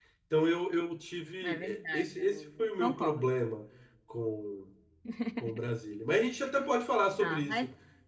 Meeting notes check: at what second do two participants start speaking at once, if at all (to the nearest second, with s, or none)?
1 s